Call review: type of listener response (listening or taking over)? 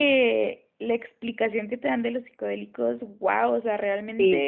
listening